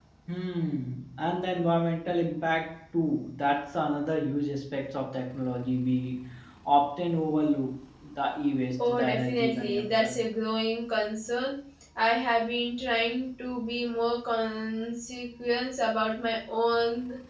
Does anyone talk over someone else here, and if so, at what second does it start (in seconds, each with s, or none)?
8.8 s